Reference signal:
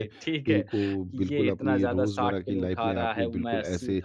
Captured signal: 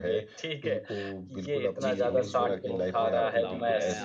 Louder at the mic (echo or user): echo